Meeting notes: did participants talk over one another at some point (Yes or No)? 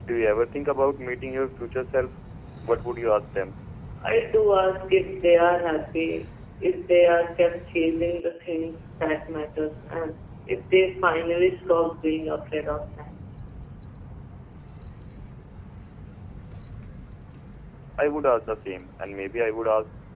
No